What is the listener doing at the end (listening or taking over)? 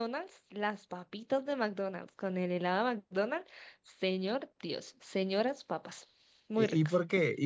taking over